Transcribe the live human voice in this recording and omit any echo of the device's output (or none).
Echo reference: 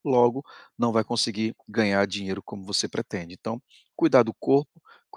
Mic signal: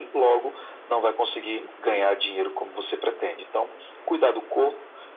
Hum,